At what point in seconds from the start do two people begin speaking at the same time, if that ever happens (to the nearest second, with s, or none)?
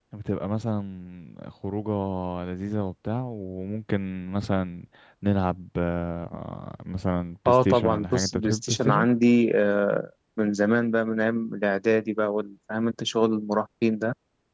7 s